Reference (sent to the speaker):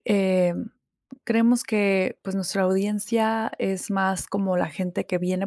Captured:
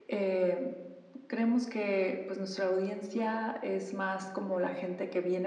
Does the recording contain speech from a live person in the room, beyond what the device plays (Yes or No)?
No